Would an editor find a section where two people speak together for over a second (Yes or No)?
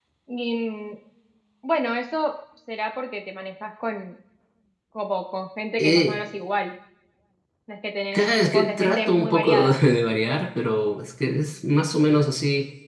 Yes